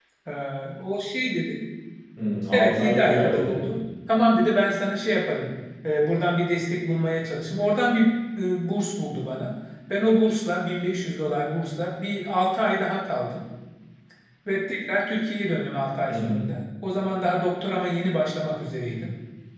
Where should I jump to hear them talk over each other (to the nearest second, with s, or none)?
3 s